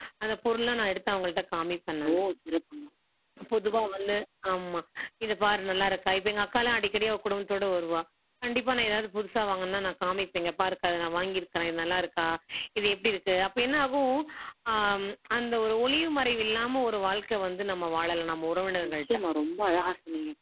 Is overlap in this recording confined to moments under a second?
Yes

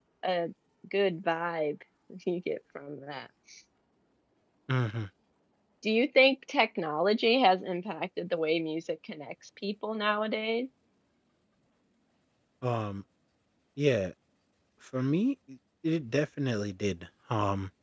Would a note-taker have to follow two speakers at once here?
No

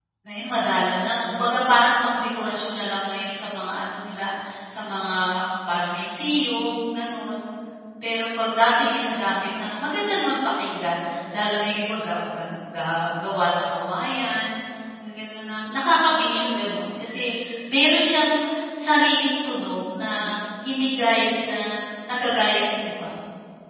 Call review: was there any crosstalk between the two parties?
No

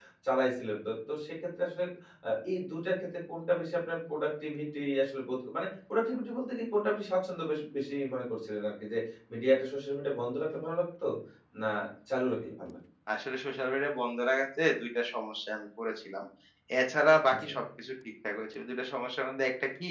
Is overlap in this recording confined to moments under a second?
Yes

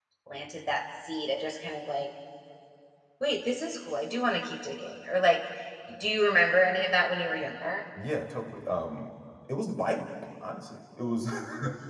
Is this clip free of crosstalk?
Yes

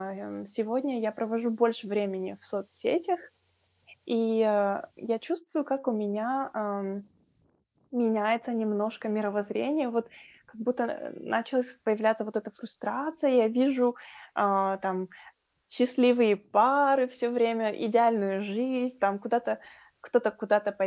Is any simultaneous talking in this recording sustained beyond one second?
No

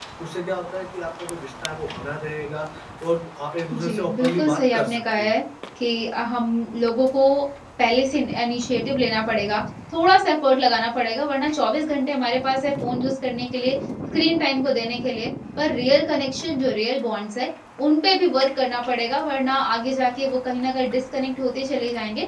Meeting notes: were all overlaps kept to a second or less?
No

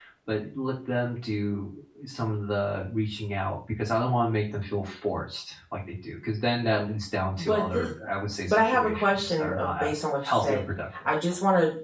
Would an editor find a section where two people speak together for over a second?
Yes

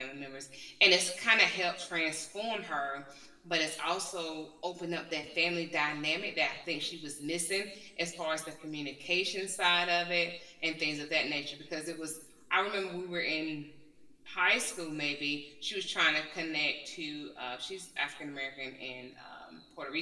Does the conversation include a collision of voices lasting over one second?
No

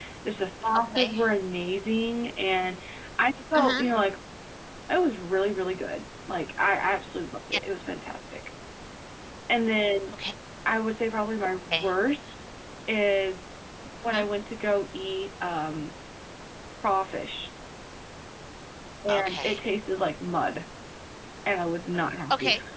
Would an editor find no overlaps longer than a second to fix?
Yes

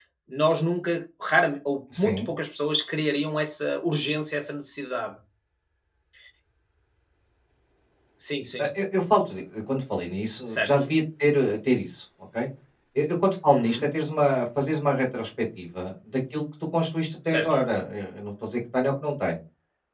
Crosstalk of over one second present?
No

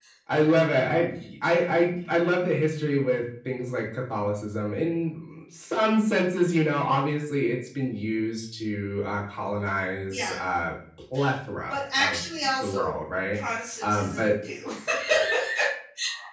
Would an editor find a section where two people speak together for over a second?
No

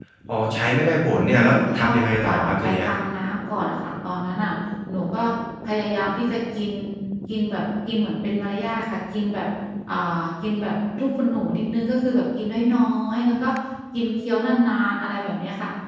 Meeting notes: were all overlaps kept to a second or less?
No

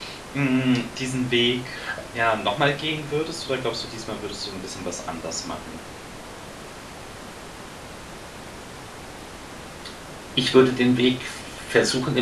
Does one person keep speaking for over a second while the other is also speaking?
No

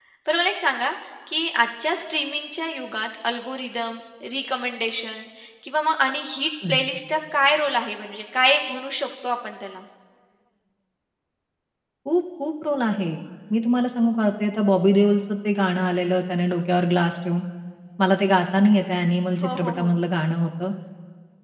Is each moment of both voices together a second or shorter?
Yes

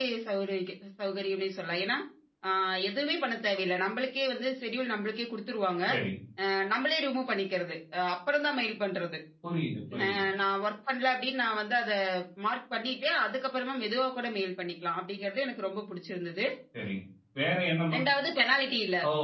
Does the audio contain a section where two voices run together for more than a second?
No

